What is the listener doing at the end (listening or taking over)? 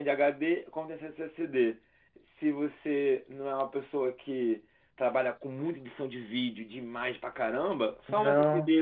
listening